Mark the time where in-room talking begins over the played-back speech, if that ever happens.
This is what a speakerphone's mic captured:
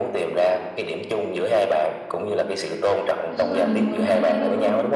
3.3 s

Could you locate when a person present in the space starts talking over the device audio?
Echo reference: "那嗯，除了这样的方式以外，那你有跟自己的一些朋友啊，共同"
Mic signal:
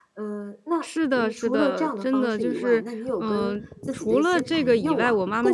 0.8 s

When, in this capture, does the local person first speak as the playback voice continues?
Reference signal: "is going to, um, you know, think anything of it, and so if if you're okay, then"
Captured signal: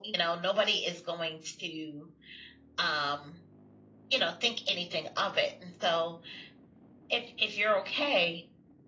none

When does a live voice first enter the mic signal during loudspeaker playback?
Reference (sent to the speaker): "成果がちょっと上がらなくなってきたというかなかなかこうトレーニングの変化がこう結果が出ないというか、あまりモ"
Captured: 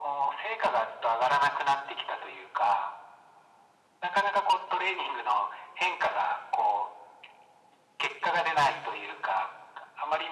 none

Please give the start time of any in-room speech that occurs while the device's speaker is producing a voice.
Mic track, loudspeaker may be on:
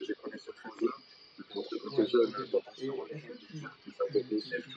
1.9 s

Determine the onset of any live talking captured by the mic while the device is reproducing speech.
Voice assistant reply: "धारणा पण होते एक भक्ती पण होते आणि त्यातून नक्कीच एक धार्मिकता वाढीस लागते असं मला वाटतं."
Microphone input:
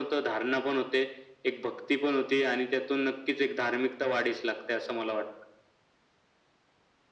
none

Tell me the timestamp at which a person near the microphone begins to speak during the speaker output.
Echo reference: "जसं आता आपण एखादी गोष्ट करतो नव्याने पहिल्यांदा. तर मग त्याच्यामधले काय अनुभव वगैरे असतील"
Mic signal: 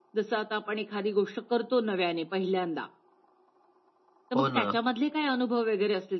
4.4 s

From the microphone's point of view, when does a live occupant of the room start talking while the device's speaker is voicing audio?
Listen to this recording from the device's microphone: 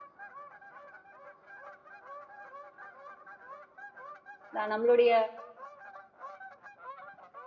4.5 s

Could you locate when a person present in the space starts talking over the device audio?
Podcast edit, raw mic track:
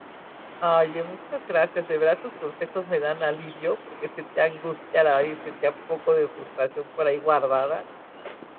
0.6 s

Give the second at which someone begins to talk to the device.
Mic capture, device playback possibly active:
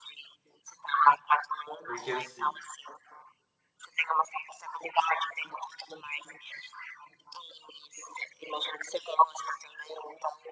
1.9 s

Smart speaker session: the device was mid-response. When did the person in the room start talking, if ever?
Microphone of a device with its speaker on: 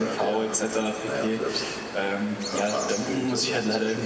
none

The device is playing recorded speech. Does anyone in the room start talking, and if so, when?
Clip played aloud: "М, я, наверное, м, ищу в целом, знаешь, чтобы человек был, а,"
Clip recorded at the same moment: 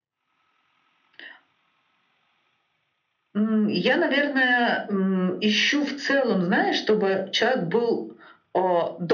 none

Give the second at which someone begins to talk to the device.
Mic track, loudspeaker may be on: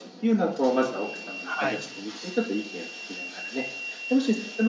1.4 s

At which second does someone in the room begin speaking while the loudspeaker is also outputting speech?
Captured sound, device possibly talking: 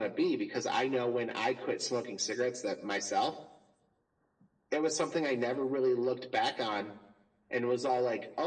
none

